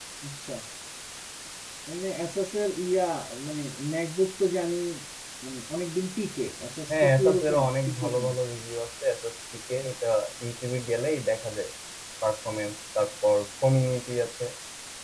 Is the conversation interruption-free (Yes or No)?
No